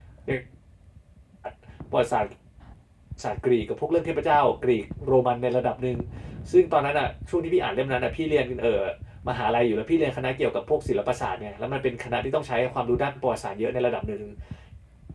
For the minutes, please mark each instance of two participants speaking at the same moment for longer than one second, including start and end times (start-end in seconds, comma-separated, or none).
none